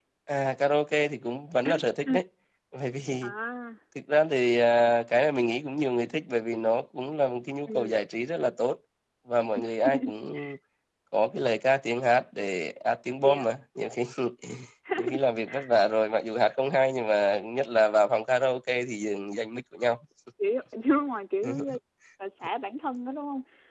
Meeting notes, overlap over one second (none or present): none